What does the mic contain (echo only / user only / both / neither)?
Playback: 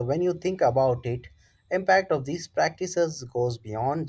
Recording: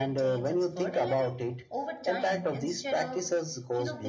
both